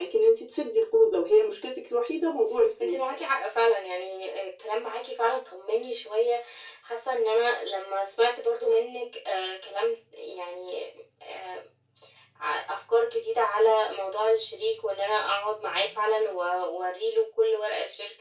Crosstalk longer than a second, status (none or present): none